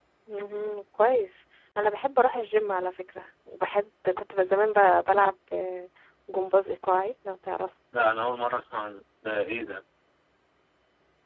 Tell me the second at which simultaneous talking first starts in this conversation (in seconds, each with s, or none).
none